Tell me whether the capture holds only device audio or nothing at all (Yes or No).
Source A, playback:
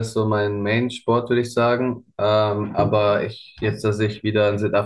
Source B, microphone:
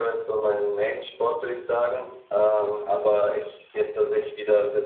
Yes